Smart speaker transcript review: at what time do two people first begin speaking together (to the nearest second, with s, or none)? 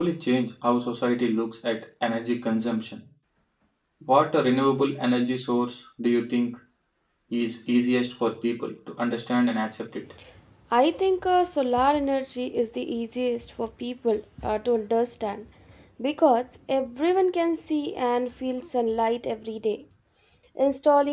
none